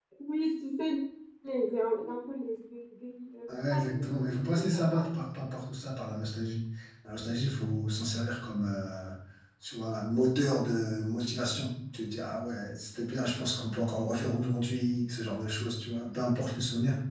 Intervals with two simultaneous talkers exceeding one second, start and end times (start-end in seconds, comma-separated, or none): 3.7-5.1